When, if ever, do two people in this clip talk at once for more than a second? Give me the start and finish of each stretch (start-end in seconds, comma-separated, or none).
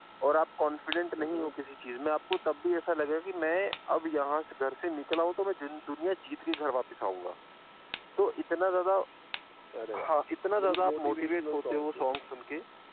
10.6-12.3